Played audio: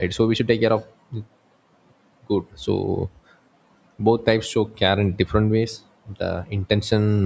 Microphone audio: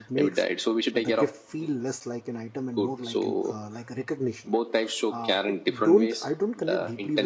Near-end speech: present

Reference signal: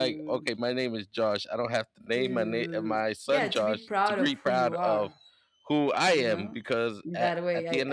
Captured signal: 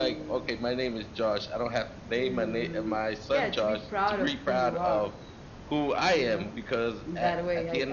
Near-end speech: none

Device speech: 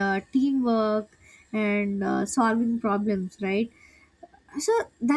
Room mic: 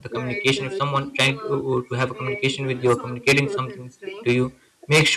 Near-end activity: present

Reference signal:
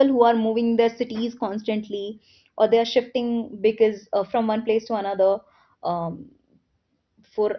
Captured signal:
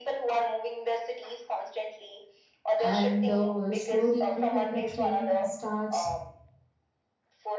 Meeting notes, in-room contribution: present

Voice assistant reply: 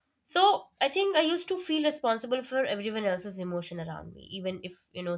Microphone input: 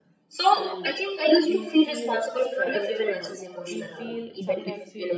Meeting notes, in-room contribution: present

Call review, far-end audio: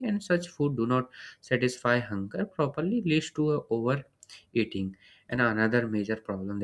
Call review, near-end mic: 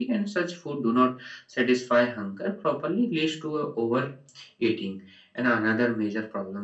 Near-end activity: none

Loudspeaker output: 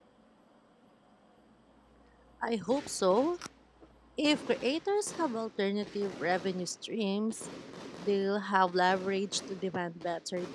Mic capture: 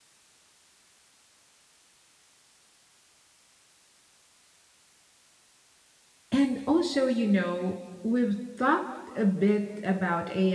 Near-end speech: present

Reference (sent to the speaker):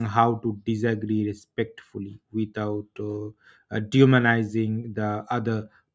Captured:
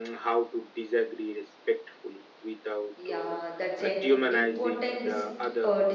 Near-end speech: present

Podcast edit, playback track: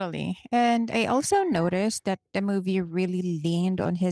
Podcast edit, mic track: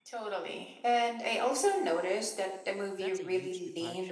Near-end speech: present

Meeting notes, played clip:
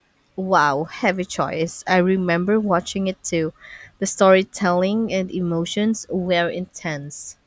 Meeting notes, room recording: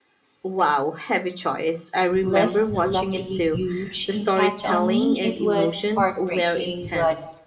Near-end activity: present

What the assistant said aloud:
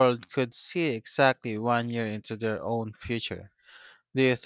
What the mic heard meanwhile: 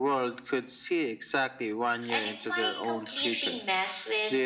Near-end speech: present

